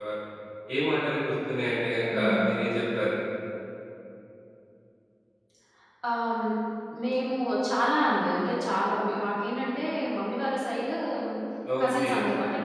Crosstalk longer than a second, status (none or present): none